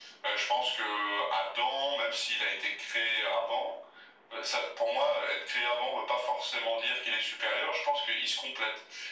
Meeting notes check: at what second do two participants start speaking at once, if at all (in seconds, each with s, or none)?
none